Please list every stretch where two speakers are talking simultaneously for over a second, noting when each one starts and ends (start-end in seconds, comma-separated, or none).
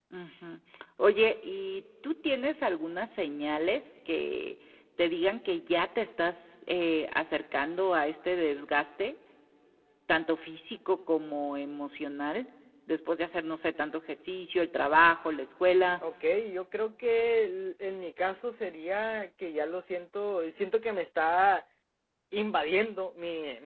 none